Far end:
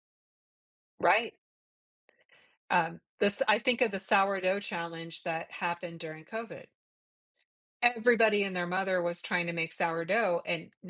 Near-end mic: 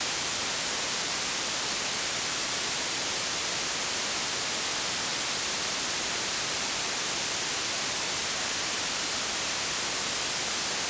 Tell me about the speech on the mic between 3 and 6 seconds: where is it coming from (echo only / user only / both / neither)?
neither